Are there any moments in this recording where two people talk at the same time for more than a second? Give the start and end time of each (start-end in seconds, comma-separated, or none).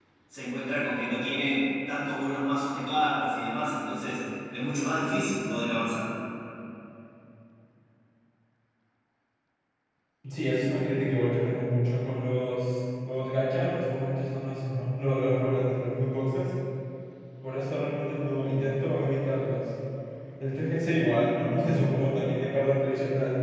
none